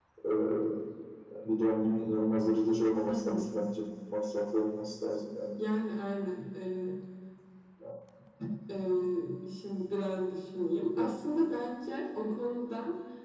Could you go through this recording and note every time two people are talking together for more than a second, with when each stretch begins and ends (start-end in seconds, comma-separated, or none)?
none